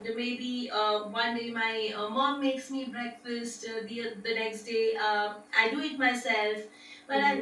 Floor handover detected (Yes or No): No